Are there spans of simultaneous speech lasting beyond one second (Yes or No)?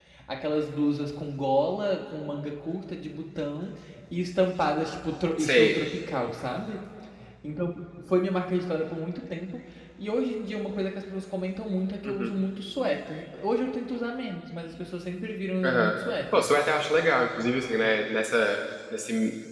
No